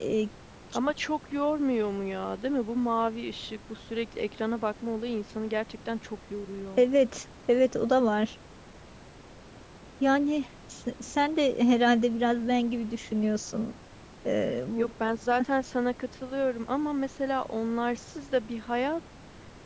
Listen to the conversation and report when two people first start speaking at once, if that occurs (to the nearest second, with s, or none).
none